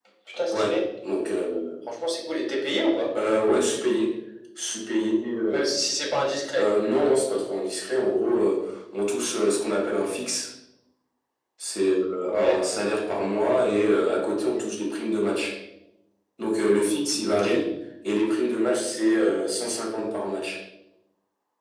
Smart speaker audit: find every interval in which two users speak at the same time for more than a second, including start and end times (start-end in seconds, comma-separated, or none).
none